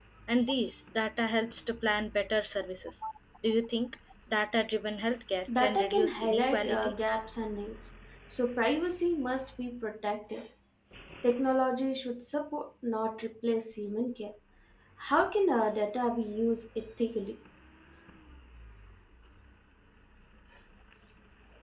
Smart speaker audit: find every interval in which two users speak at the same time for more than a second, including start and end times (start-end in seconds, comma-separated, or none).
5.6-6.9